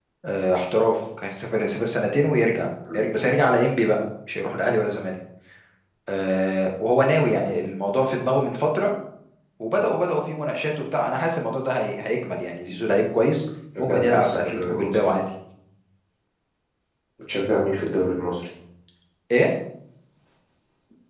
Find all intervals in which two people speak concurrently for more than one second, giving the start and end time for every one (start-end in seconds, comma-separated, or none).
13.8-15.1